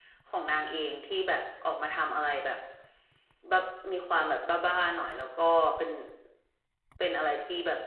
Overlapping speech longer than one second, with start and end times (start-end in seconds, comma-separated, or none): none